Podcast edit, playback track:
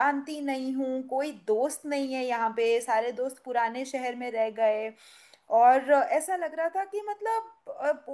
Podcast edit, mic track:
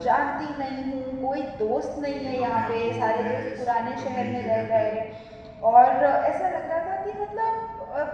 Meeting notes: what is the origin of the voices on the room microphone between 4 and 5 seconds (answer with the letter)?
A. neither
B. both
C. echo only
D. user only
B